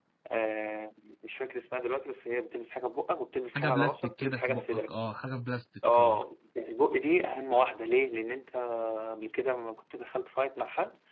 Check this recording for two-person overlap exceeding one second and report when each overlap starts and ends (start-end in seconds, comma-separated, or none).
3.5-4.9